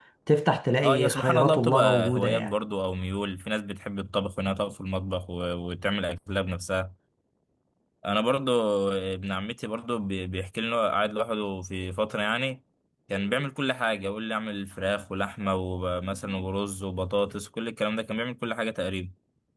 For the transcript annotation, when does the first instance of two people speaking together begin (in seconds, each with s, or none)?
0.8 s